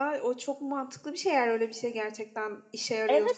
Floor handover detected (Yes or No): Yes